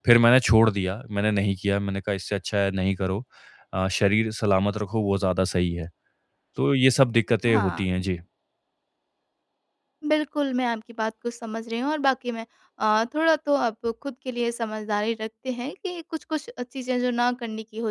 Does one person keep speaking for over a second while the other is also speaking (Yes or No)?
No